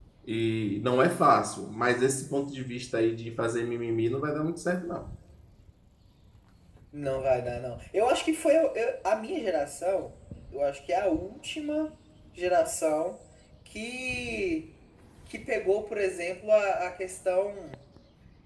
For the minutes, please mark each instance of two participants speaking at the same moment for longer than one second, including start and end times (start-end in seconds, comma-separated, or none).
none